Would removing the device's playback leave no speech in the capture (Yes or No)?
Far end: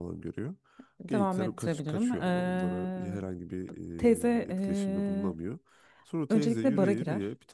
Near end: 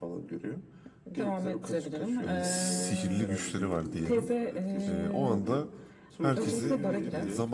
No